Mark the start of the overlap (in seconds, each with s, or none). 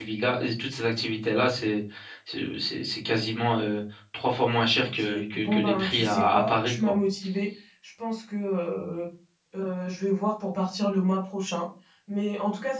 4.8 s